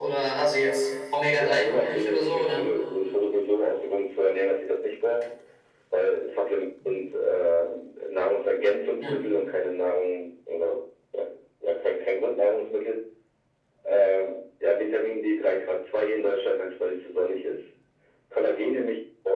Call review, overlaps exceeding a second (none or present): present